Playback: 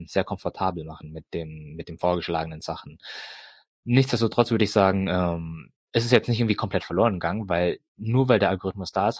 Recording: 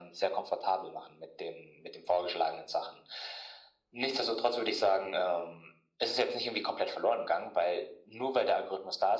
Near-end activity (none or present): none